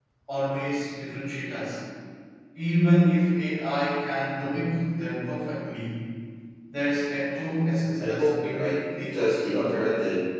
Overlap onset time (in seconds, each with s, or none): 8.0 s